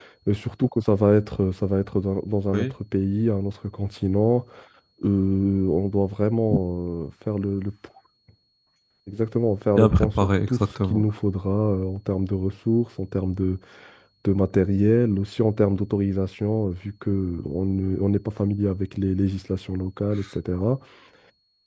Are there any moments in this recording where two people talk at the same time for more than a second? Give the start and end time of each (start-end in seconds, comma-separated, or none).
9.8-11.1